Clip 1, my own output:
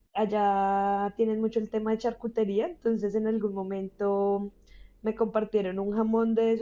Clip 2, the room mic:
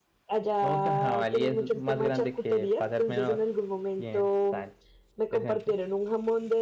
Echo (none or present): present